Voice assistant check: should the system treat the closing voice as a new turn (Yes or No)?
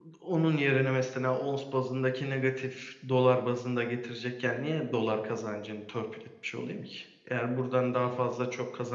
No